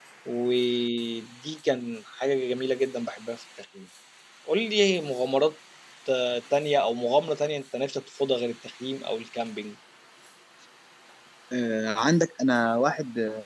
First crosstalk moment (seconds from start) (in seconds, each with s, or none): none